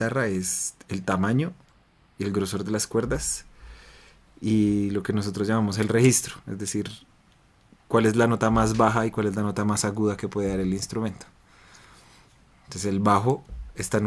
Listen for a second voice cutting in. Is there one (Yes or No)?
No